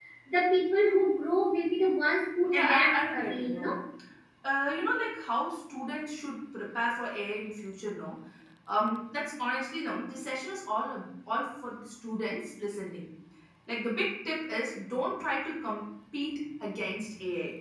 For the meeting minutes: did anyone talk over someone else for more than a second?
Yes, from 2.5 s

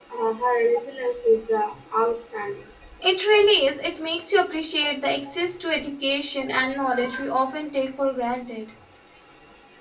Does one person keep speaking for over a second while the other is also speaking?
No

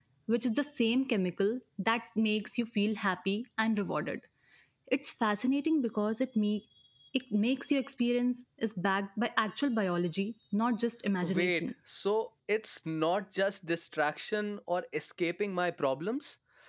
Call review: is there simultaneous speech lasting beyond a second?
No

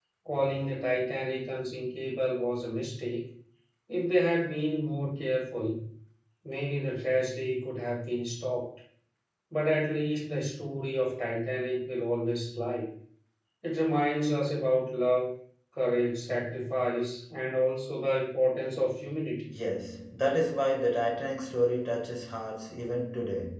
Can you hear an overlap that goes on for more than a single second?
No

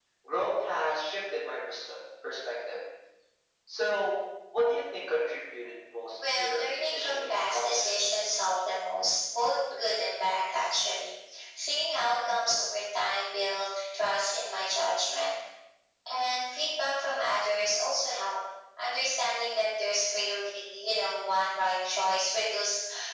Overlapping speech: Yes, from 6.1 s

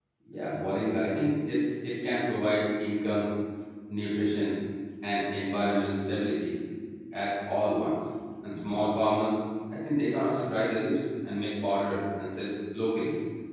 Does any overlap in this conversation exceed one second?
No

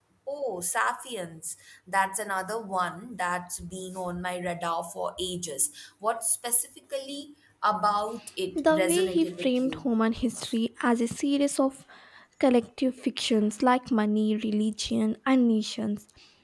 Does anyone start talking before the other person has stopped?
Yes, from 8.6 s

